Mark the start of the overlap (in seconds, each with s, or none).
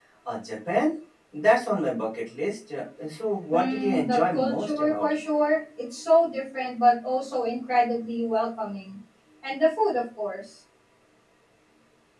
3.5 s